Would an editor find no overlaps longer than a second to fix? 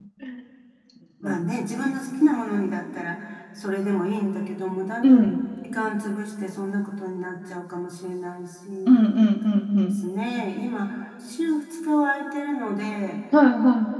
Yes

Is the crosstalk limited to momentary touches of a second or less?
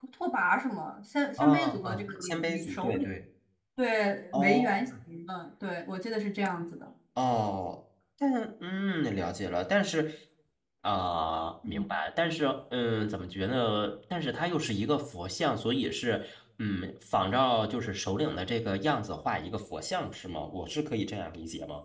No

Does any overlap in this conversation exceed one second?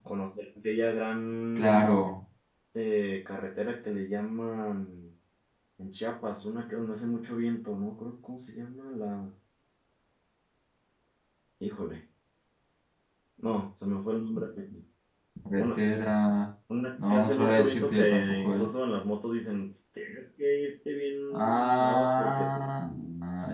Yes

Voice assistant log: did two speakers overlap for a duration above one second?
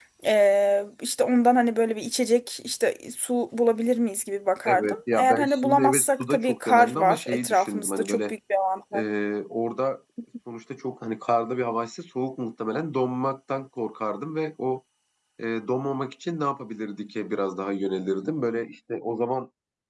Yes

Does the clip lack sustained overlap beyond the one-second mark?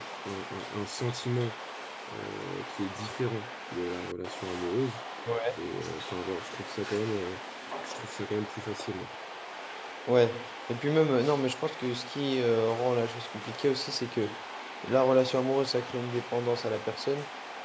Yes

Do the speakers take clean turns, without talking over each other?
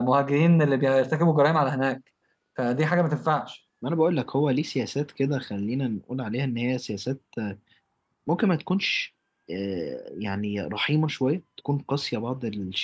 Yes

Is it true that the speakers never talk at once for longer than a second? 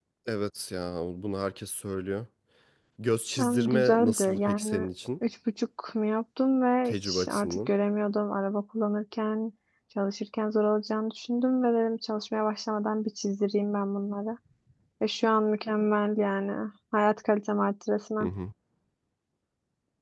No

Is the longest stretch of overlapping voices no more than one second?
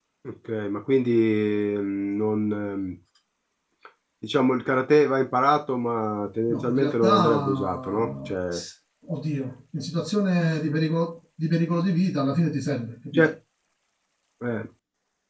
No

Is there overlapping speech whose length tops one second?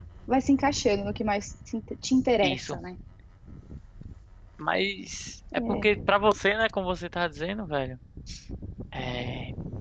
No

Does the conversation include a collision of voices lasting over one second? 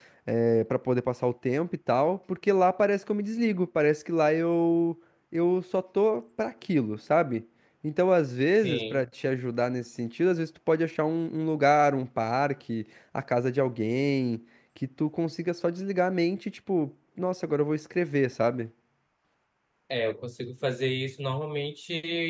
No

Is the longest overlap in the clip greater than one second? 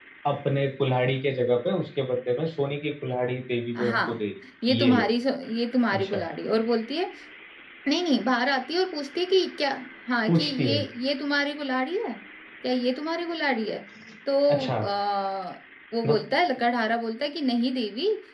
No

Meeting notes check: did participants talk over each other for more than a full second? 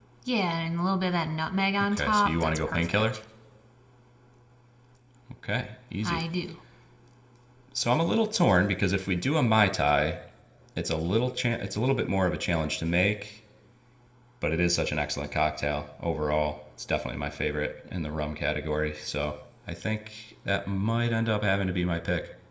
Yes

